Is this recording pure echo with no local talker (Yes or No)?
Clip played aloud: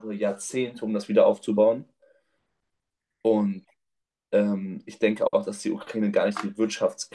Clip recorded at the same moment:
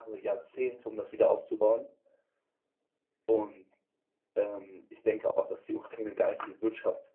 Yes